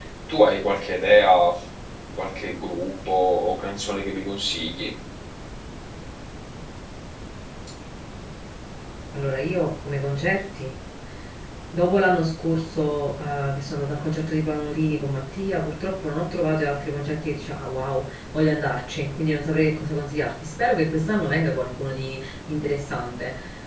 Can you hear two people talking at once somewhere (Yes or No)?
No